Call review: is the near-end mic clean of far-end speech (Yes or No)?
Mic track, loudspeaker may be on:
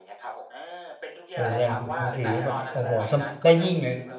No